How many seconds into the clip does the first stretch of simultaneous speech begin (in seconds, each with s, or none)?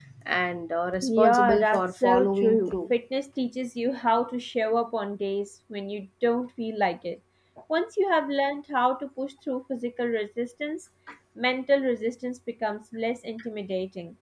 1.0 s